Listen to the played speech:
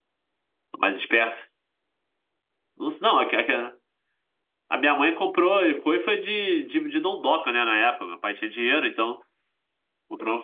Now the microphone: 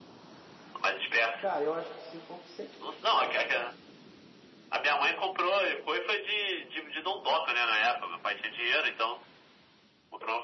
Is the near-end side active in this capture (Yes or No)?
Yes